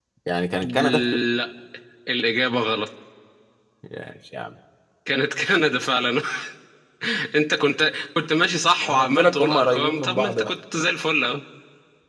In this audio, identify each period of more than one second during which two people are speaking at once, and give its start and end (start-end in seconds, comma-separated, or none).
8.8-10.5